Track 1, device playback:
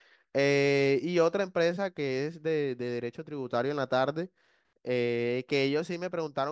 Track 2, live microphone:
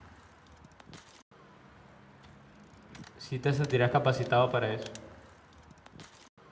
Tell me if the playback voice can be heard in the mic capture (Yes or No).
No